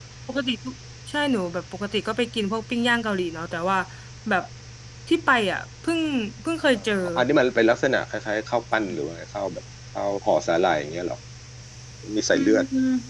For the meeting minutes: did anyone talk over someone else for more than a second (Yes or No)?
No